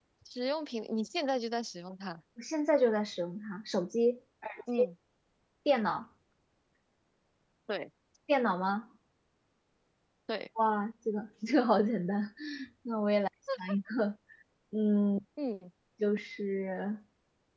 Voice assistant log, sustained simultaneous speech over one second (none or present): none